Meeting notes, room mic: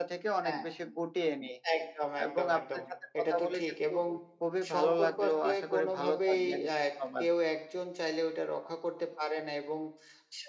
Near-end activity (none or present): present